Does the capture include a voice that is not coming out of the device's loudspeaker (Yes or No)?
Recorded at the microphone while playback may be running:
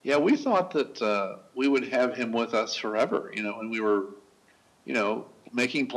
No